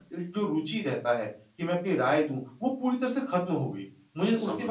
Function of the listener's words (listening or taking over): listening